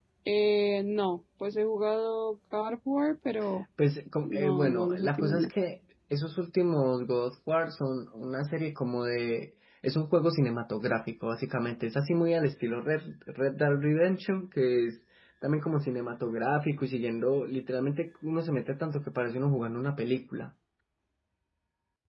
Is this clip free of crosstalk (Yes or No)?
No